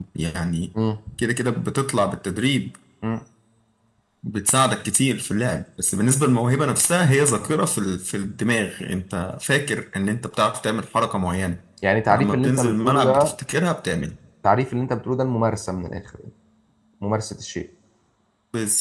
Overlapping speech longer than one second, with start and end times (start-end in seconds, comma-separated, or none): 12.1-13.3